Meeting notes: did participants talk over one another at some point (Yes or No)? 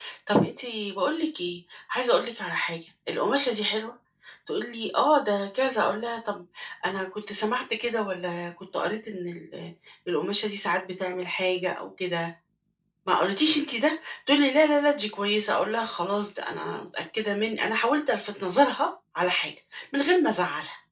No